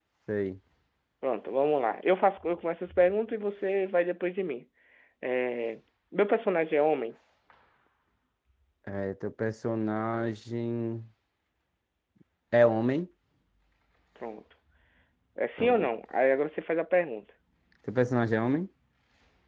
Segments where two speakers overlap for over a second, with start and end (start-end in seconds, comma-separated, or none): none